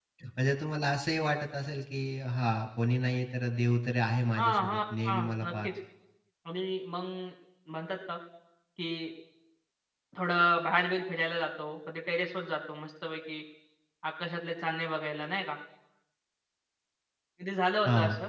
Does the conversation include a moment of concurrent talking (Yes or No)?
Yes